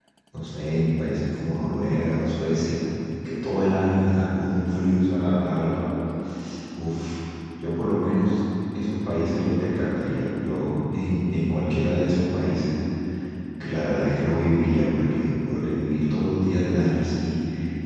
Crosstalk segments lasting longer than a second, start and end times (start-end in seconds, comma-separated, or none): 4.5-5.8